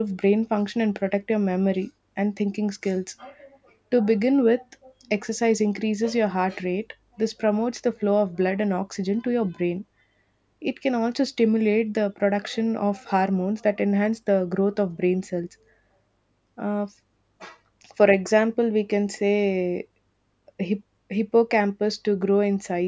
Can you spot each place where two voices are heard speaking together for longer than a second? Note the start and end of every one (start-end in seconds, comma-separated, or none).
none